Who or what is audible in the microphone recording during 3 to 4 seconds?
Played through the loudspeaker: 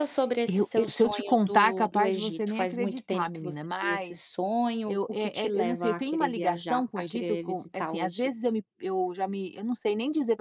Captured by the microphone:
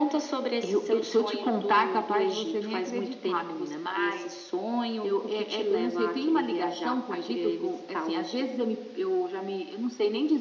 echo only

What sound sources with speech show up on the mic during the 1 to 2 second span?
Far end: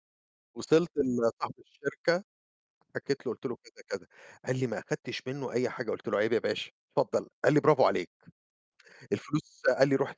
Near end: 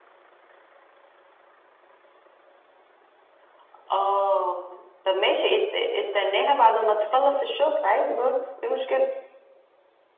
neither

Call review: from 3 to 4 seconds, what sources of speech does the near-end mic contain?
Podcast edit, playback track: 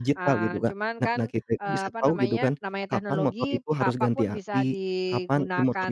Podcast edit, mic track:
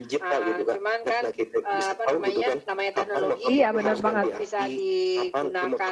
both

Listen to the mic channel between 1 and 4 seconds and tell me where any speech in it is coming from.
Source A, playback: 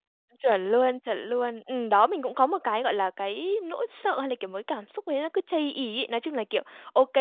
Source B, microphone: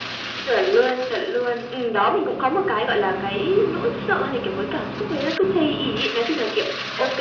echo only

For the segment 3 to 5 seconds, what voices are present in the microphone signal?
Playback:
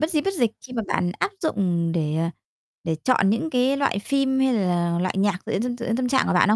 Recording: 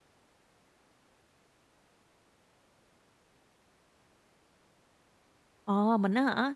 neither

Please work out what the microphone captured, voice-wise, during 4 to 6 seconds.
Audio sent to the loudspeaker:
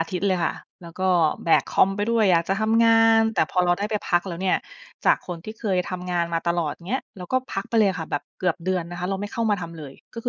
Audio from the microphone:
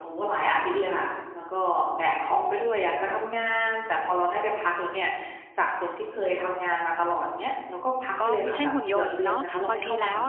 echo only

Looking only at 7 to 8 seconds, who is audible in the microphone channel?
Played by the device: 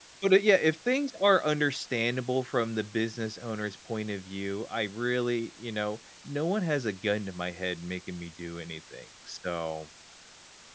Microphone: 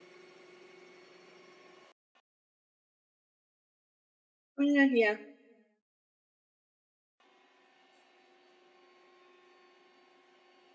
neither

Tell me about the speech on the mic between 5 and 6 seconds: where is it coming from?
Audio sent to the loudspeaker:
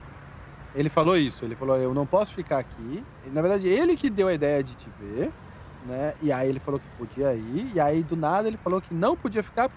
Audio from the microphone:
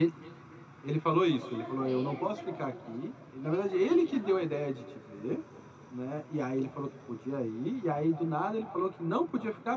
echo only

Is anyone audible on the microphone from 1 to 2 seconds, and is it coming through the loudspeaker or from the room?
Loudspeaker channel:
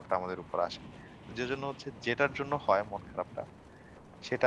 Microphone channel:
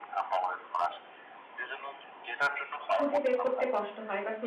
echo only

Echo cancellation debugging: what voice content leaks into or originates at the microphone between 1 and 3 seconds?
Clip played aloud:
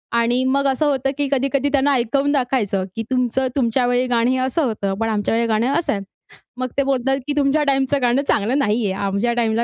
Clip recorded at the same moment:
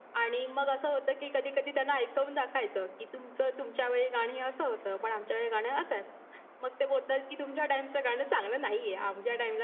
echo only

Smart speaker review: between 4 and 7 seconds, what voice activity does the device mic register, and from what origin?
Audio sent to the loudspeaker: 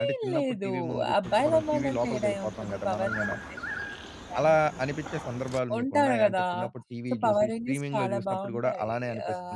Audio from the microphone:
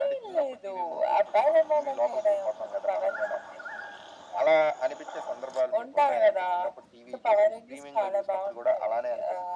echo only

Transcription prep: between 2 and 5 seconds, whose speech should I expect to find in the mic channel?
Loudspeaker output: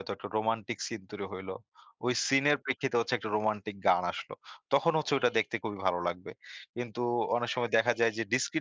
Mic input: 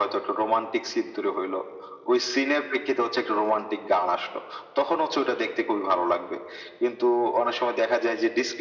echo only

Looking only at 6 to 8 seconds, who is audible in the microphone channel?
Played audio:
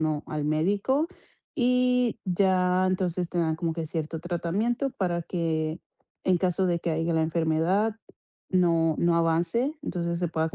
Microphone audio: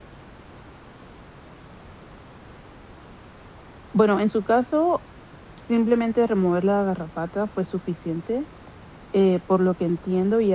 user only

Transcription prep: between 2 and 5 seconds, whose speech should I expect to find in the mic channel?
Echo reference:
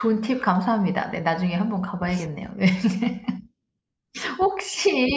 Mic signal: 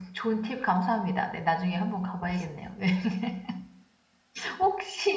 echo only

